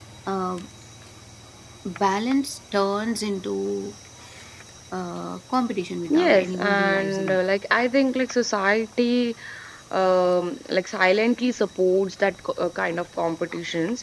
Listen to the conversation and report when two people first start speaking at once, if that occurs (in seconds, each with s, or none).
6.0 s